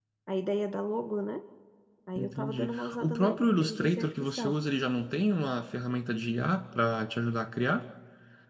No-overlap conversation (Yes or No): No